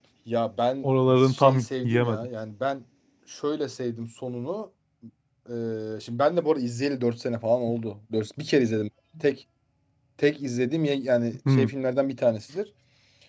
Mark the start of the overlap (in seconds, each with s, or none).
0.8 s